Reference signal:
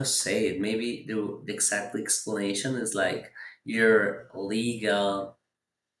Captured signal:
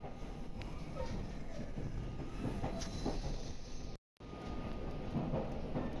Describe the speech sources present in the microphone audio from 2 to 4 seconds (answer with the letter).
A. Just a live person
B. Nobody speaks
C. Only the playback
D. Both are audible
B